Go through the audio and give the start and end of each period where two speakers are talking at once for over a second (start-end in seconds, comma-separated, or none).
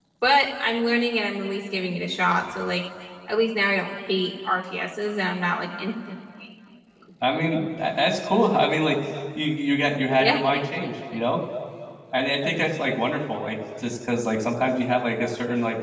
none